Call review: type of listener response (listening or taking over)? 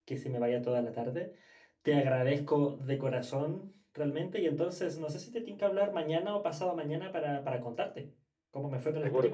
taking over